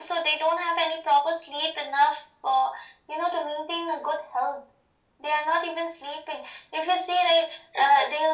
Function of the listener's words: listening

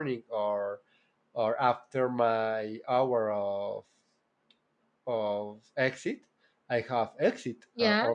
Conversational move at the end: listening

